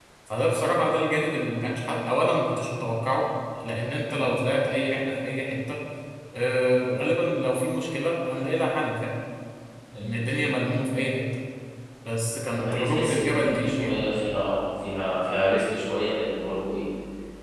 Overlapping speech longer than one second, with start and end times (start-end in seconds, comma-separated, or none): 12.6-13.9